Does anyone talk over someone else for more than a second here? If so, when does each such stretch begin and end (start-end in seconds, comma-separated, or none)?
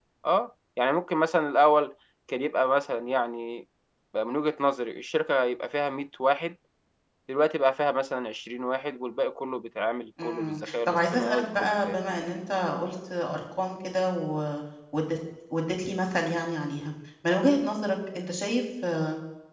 10.2-11.9